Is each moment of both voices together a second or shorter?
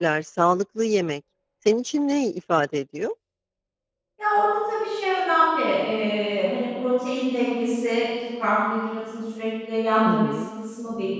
Yes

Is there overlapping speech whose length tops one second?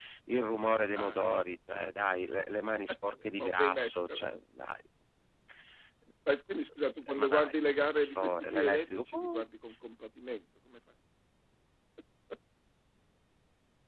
Yes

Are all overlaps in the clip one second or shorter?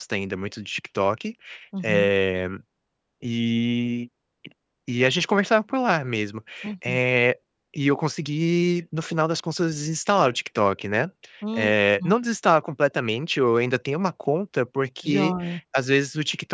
Yes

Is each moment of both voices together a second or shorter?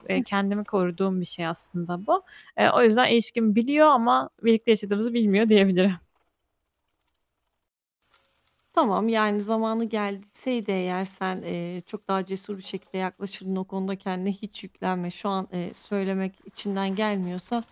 Yes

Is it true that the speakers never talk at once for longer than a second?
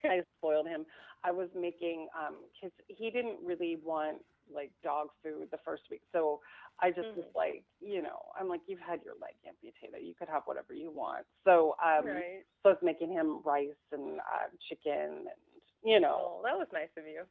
Yes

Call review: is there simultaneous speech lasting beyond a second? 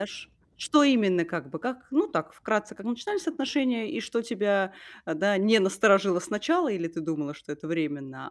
No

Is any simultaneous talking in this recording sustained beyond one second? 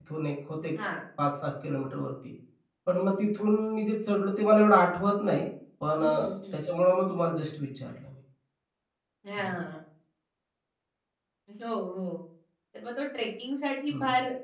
No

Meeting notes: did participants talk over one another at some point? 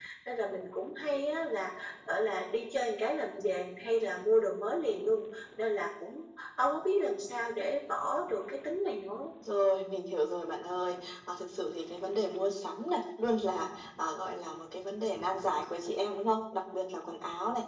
No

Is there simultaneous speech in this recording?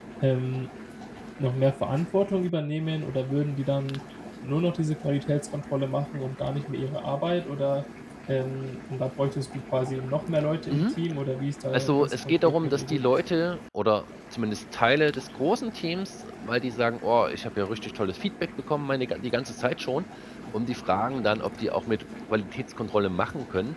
Yes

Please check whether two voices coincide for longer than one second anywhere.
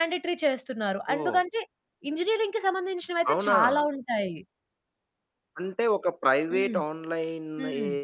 No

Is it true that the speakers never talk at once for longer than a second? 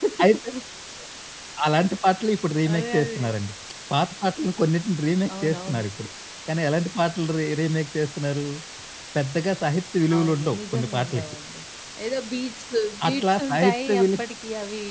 No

